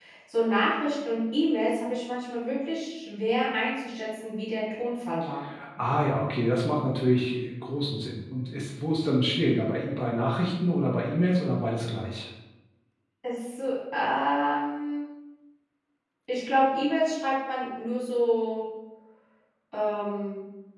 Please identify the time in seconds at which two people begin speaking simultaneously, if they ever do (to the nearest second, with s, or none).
none